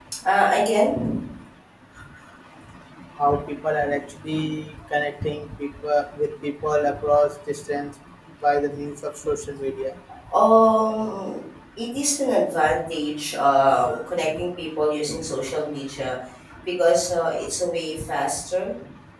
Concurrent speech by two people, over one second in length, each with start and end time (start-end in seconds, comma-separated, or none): none